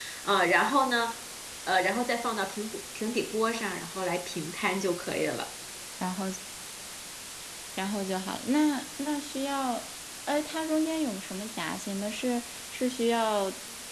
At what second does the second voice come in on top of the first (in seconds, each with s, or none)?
none